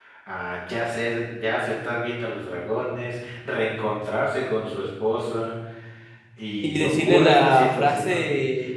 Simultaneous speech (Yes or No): Yes